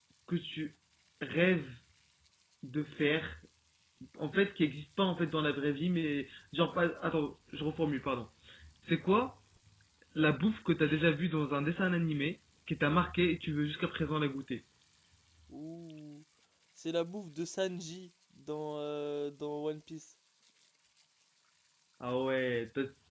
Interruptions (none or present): none